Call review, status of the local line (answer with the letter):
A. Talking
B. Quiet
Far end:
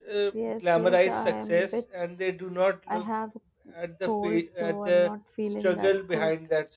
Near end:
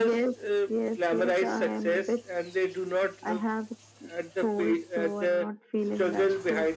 B